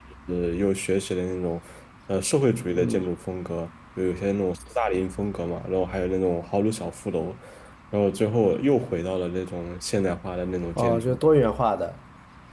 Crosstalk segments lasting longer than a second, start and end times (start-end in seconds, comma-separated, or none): none